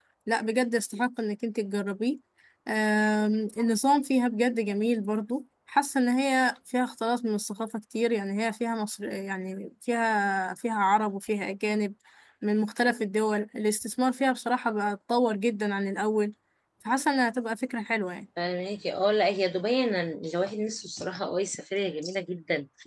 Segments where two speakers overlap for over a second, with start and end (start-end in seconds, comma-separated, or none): none